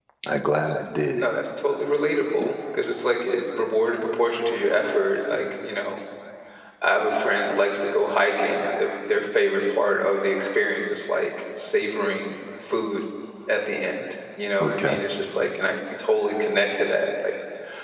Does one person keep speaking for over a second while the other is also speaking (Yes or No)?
No